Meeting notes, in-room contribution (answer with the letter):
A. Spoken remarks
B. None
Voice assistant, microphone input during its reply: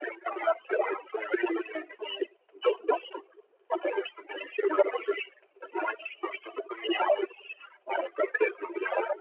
B